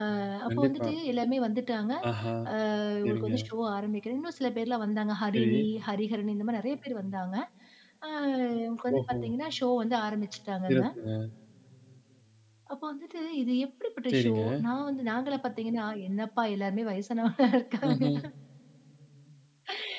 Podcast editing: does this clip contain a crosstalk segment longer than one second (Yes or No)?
No